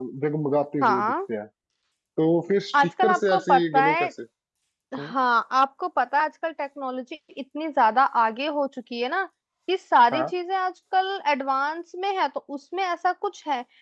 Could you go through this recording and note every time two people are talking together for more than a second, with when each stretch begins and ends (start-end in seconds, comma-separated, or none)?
2.7-4.0